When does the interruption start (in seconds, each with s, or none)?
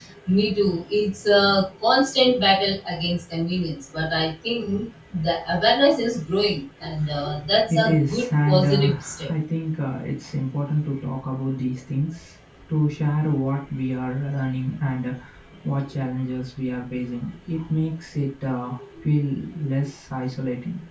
7.7 s